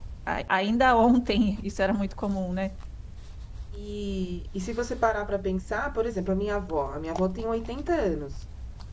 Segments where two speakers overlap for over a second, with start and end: none

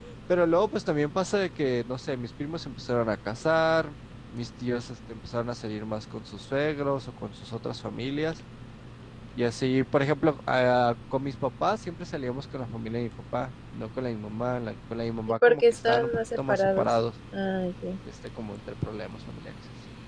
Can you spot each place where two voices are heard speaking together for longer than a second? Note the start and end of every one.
15.5-16.9

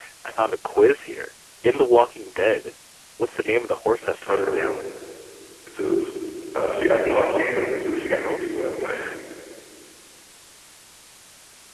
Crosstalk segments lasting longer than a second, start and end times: none

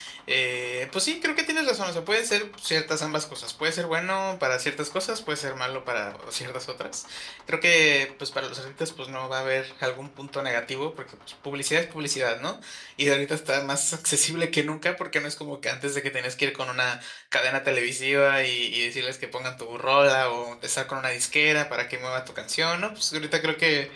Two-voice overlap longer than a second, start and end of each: none

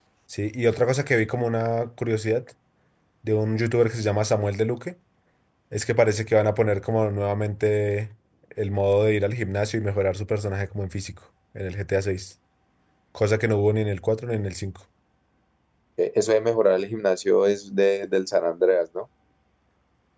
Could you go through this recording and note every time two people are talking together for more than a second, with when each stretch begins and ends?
none

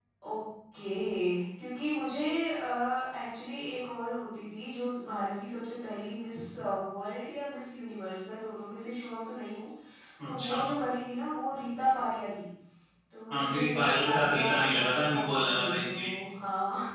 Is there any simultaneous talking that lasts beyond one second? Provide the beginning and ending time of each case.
13.3-16.1

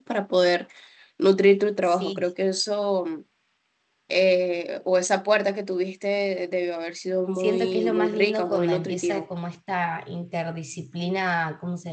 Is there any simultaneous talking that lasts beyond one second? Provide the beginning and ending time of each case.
7.3-9.2

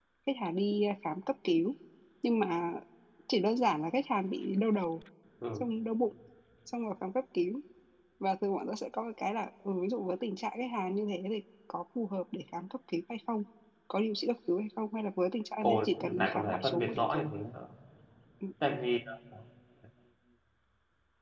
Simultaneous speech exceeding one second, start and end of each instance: 15.6-17.3

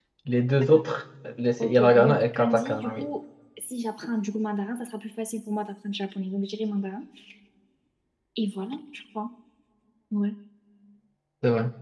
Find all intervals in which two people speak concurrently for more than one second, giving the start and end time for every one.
1.6-3.1

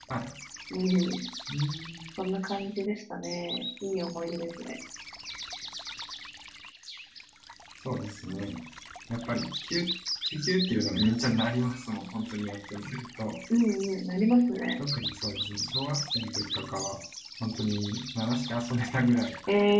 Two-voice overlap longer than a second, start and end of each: none

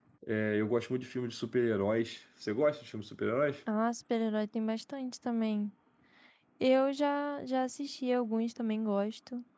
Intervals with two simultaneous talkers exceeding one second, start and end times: none

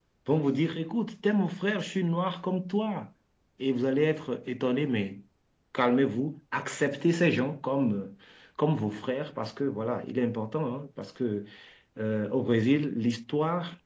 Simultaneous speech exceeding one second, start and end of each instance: none

